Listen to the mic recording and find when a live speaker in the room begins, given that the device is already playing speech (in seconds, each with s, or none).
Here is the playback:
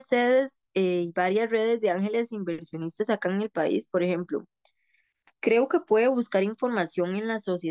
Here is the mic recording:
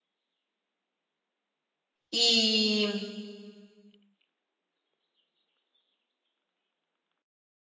2.1 s